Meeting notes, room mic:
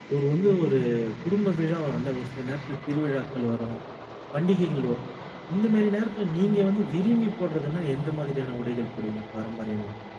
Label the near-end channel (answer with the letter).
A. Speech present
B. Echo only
B